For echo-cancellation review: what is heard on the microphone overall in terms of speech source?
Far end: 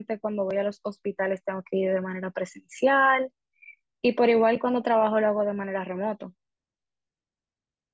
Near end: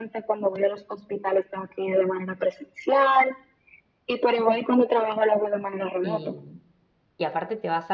both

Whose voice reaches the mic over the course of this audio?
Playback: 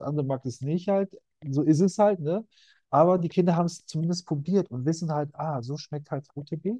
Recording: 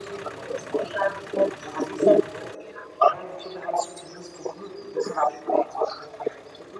echo only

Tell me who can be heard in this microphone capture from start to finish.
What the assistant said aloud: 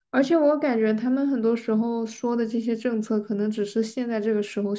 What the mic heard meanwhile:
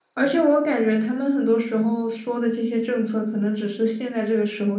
echo only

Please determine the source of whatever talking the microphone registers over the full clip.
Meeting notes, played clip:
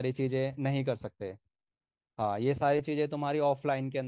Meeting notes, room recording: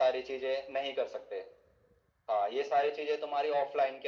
echo only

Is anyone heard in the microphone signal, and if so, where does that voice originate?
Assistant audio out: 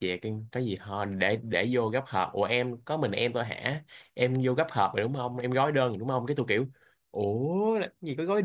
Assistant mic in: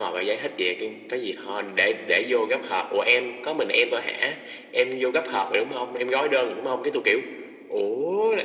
echo only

